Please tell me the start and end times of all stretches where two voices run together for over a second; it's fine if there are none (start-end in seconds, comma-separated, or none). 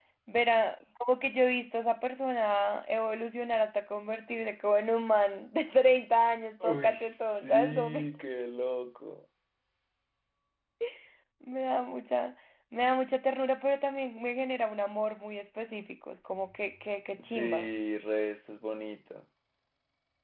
6.6-8.1